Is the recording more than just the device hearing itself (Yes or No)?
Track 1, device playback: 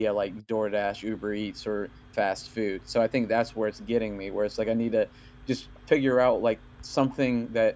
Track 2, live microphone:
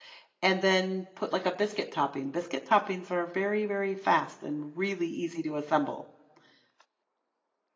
Yes